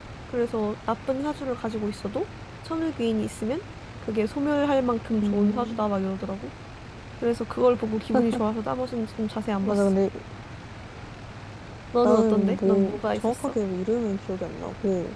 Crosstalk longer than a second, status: present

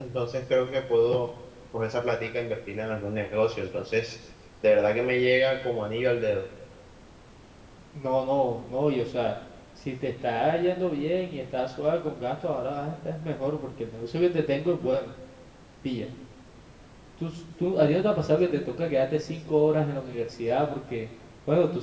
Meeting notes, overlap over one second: none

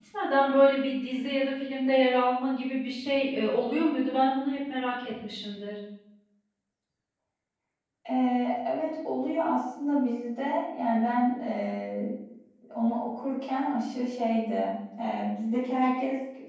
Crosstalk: none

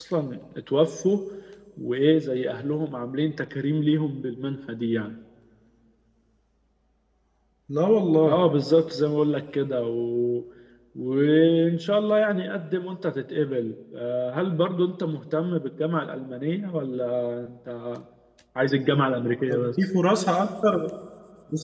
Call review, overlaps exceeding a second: none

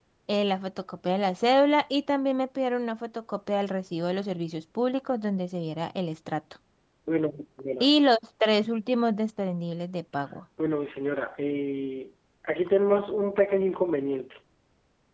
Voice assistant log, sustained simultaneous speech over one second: none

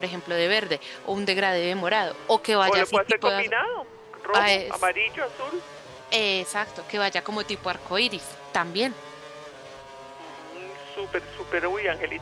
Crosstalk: present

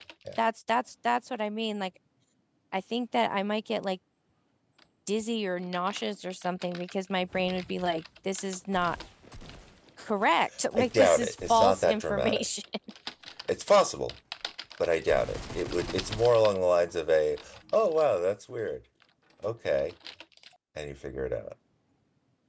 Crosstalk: present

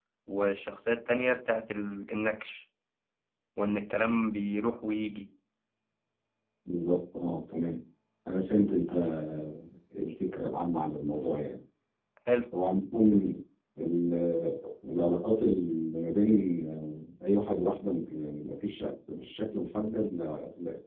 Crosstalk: none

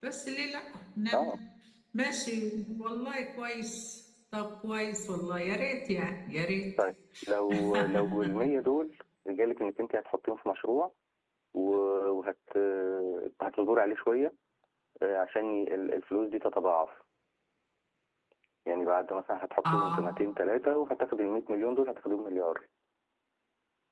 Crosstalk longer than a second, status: none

